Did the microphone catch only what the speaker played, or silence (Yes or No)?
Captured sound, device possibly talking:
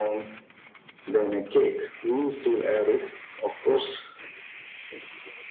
Yes